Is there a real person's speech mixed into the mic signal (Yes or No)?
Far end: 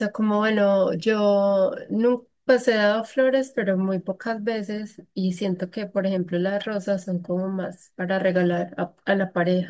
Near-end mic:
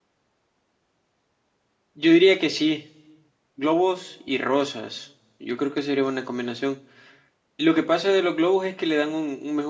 Yes